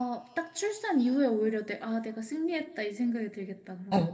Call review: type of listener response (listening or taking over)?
taking over